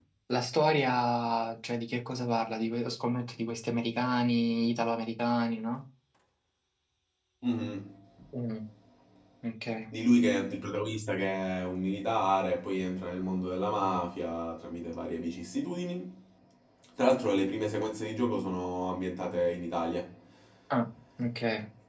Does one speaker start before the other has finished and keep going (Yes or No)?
No